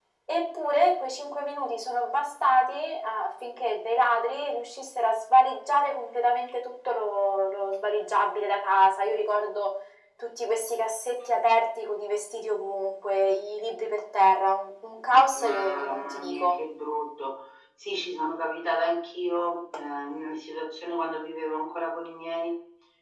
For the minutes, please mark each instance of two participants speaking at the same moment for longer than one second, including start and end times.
15.3-16.5

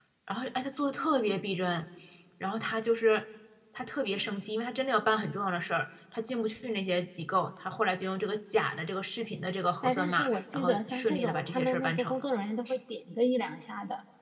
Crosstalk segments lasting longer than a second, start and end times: 9.8-12.2

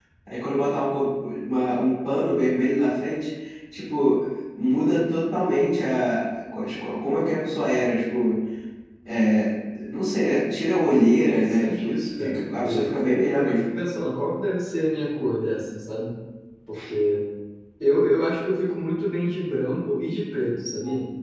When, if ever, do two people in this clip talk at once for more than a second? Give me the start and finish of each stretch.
11.2-12.9

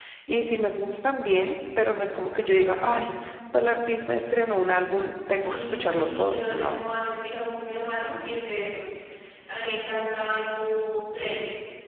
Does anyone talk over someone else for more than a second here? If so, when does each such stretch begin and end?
5.4-6.8

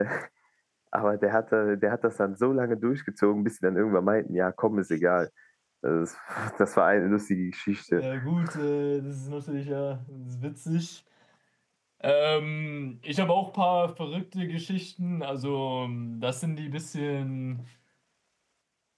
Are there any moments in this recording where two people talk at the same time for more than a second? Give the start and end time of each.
none

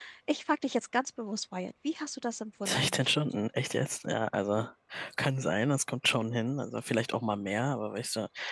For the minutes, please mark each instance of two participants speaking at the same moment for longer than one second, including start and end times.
none

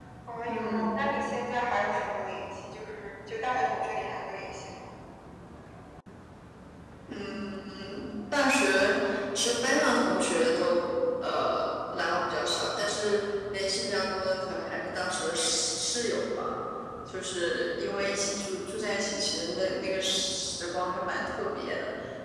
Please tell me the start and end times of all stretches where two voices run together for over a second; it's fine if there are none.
none

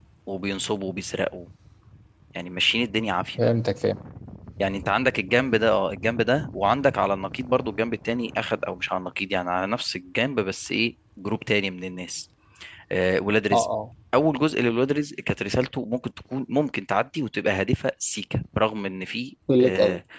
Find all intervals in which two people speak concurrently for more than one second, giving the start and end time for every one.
none

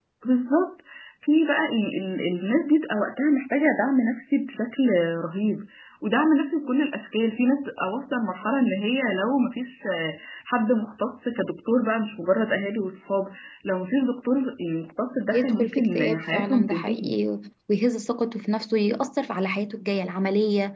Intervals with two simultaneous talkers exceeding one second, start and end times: 15.3-17.2

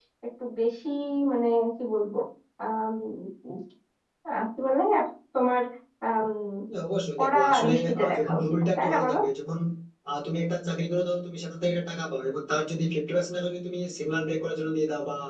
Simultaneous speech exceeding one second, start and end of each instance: 7.2-9.2

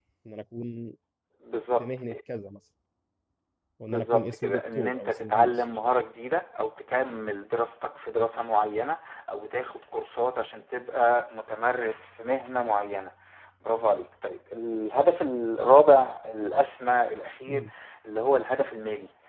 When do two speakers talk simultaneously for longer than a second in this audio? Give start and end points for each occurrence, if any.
3.9-5.5

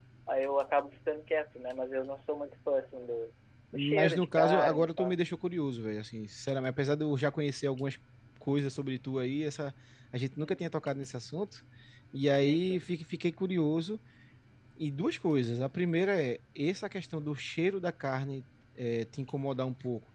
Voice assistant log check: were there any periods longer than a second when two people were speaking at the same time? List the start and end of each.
3.7-5.1

